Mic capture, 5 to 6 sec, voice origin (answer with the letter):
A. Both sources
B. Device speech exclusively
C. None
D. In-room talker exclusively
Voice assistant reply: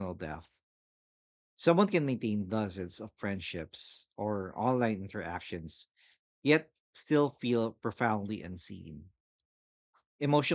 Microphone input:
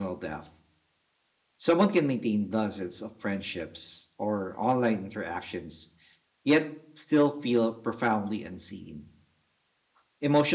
B